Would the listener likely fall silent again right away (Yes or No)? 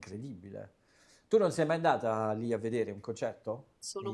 No